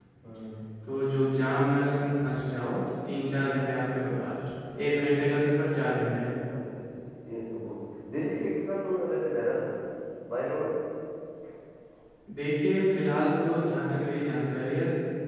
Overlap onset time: none

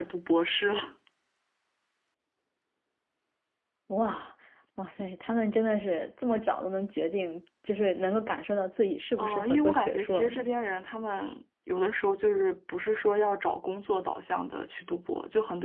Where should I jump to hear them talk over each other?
9.2 s

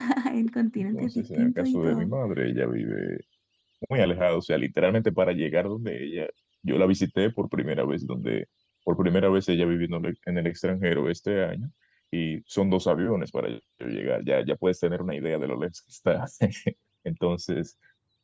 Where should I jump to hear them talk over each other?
0.8 s

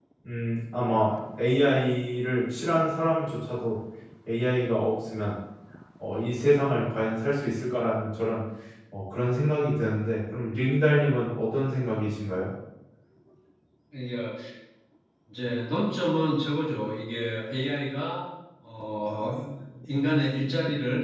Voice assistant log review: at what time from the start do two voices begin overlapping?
none

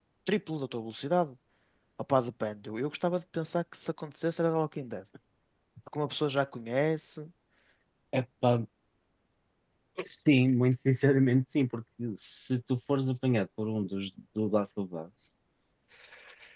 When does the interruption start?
none

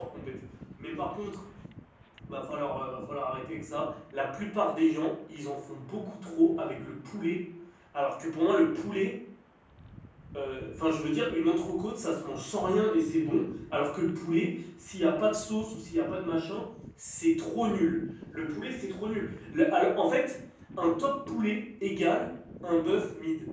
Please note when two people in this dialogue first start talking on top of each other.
none

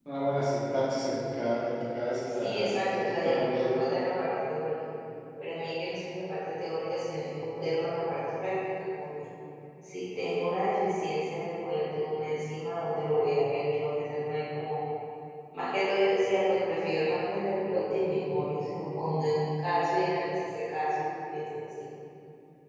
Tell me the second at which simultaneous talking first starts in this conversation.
2.4 s

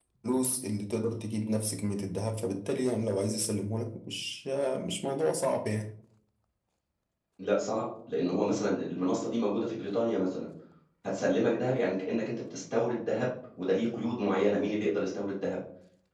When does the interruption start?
none

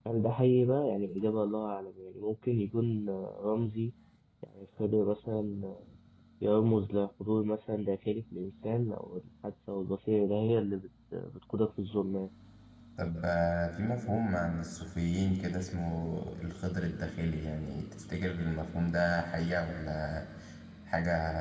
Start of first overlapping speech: none

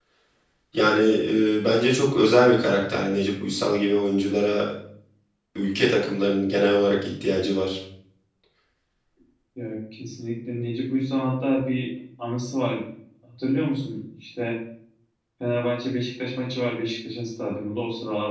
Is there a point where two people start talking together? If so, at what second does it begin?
none

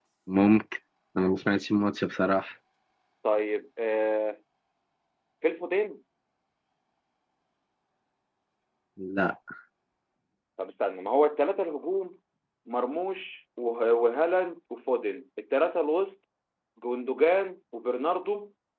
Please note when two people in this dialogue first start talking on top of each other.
none

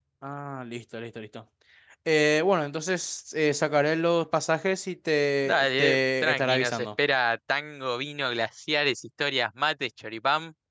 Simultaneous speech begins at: 5.4 s

